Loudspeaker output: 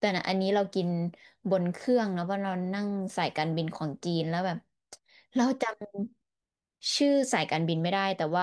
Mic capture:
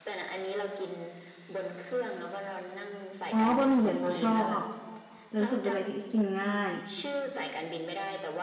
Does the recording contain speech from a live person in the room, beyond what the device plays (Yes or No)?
Yes